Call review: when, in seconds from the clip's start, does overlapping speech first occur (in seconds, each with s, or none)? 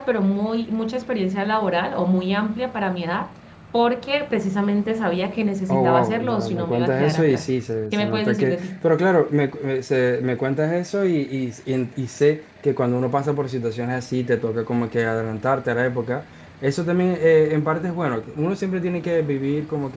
5.7 s